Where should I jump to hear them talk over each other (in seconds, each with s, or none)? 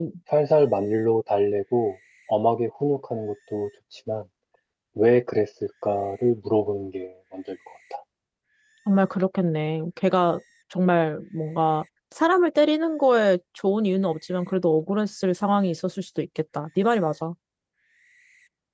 none